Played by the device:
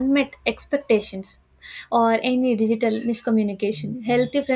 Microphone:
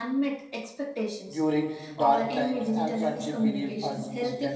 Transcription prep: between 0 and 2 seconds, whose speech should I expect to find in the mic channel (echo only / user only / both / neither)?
both